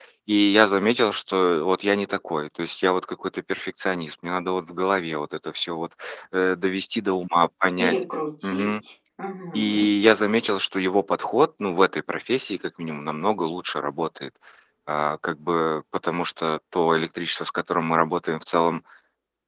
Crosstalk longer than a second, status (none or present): none